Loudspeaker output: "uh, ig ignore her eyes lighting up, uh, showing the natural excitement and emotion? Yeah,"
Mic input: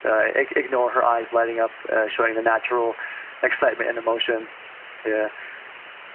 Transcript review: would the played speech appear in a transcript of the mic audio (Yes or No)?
Yes